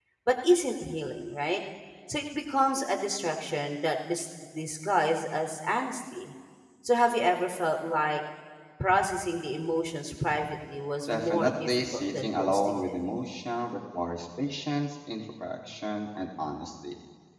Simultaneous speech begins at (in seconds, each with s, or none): 11.1 s